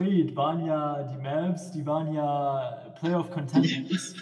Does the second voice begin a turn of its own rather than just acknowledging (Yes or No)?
No